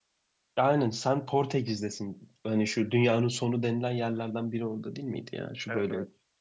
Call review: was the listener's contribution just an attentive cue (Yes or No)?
No